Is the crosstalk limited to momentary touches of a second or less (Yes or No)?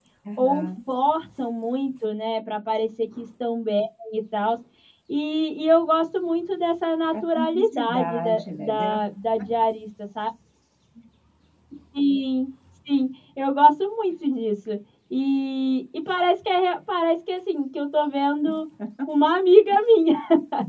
No